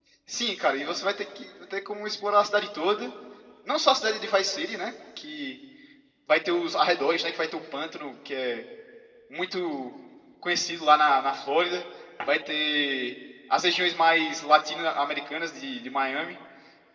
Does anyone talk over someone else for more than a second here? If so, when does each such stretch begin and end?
none

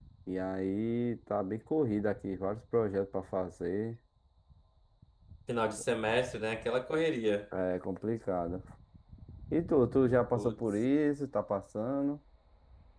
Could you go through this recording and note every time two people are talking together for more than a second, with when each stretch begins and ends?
none

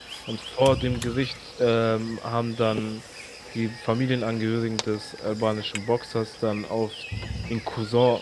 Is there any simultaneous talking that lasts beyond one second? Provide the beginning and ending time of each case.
none

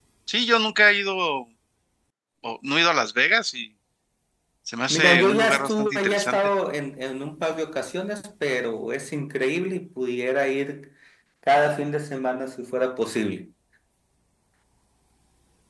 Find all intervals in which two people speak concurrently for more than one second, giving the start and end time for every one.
4.9-6.4

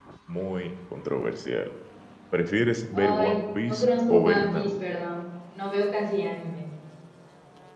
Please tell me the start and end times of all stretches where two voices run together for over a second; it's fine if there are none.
2.9-4.7

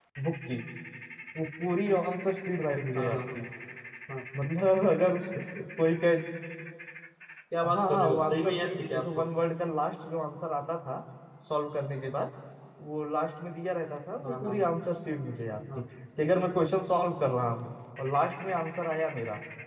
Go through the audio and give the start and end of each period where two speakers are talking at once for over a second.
7.7-9.2

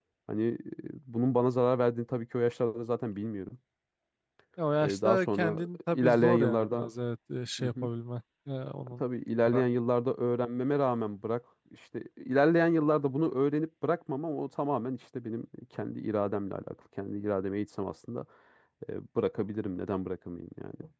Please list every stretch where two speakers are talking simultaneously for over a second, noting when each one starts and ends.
4.8-6.9

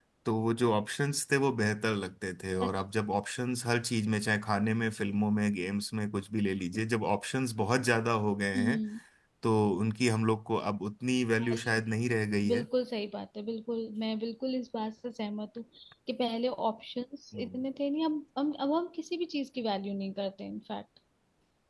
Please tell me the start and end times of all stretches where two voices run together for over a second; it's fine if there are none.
none

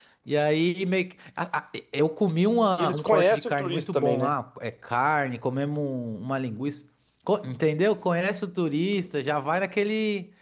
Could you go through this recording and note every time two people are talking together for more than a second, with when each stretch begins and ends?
2.8-4.3

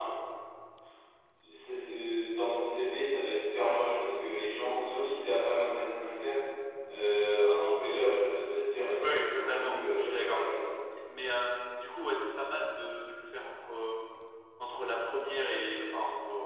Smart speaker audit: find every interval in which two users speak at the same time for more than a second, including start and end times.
9.0-10.4

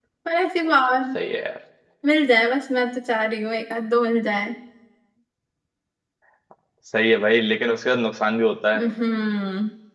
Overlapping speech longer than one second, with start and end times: none

